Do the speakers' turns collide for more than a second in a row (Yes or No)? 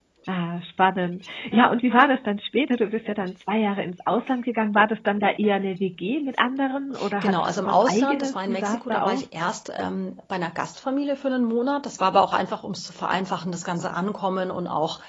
Yes